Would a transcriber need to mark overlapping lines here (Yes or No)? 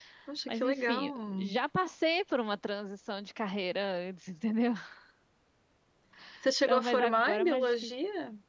Yes